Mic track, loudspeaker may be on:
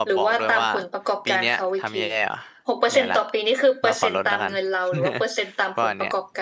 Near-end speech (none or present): present